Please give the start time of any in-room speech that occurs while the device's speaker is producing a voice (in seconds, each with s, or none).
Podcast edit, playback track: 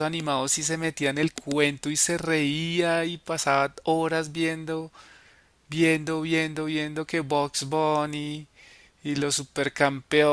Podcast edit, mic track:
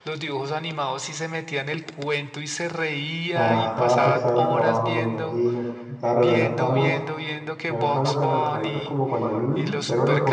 3.3 s